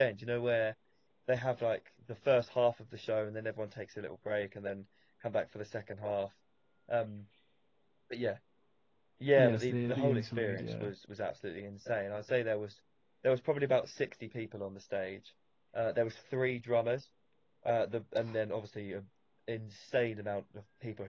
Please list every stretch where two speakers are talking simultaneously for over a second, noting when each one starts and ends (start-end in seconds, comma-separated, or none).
9.4-10.9